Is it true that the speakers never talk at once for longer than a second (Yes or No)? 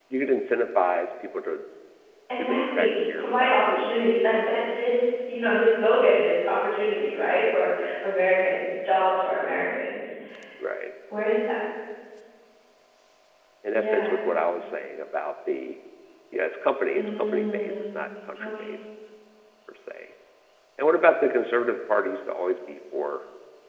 No